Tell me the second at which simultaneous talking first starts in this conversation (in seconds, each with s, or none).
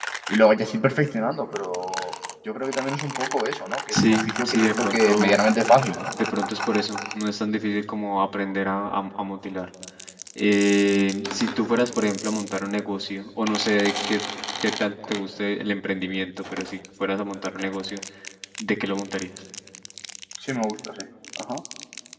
3.9 s